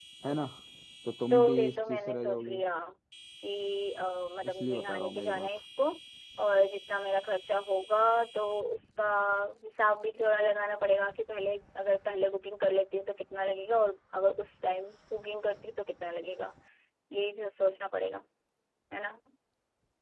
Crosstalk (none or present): present